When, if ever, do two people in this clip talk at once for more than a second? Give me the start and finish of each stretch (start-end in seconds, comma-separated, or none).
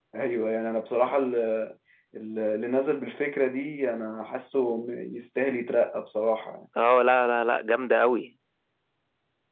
none